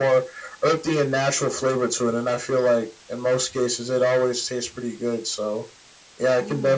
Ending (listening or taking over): listening